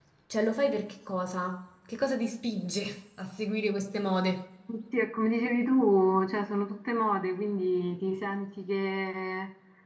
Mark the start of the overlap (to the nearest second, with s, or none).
none